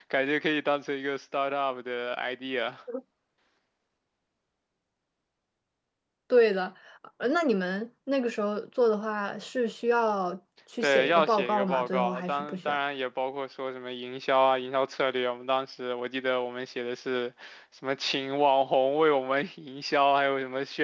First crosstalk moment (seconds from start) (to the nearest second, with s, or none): 11 s